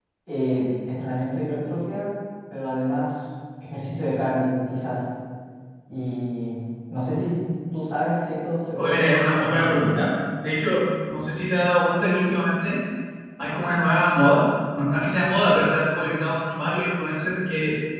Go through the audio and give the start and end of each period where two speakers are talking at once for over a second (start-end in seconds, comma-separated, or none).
8.8-10.1